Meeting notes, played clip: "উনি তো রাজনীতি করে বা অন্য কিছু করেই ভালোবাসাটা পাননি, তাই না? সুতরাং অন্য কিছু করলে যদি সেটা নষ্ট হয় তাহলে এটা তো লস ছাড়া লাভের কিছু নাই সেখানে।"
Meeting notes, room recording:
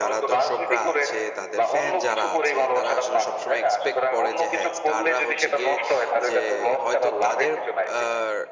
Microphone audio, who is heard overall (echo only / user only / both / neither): both